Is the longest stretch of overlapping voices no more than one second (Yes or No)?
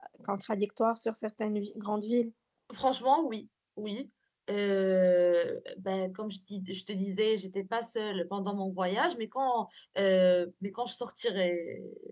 Yes